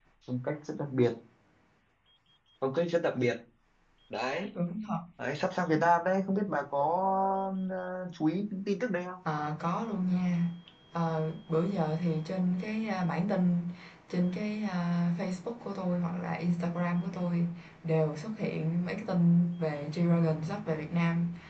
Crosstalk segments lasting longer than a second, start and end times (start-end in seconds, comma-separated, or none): none